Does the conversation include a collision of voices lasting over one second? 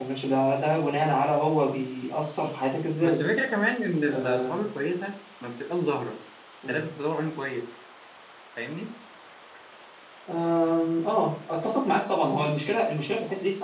No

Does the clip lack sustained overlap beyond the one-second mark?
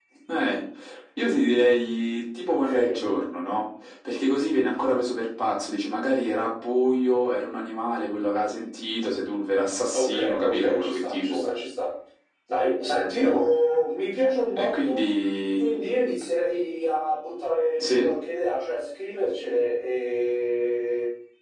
No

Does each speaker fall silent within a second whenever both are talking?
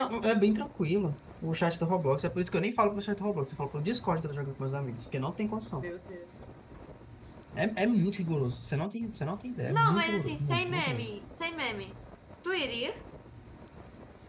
No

